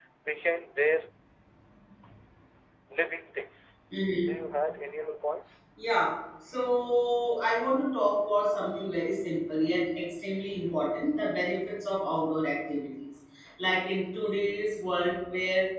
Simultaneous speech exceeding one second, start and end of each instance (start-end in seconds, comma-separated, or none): none